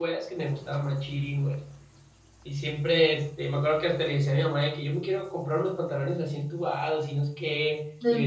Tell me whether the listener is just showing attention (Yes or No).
Yes